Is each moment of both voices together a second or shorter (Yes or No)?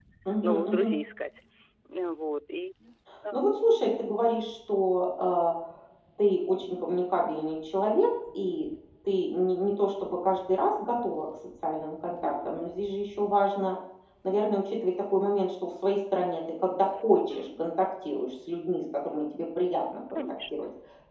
Yes